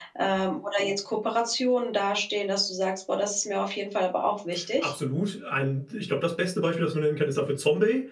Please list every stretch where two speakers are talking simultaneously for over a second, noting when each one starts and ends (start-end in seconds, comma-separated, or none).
none